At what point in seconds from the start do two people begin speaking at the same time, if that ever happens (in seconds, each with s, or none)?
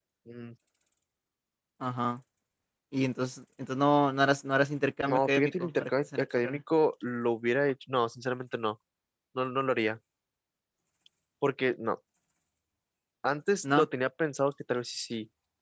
5.1 s